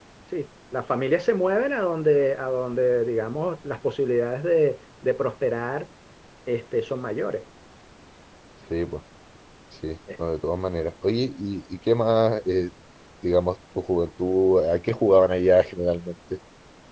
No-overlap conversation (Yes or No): Yes